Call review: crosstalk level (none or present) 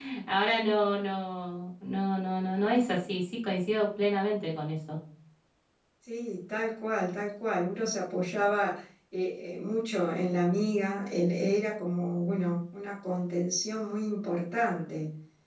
none